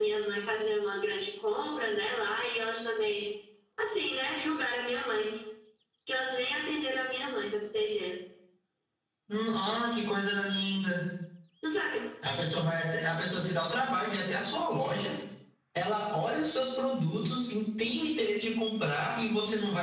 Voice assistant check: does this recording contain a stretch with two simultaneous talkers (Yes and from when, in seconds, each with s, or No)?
No